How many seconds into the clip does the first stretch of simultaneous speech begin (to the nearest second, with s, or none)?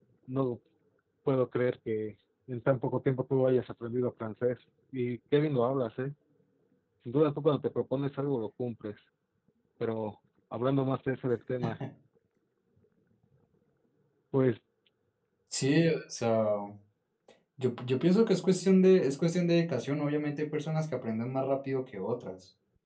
none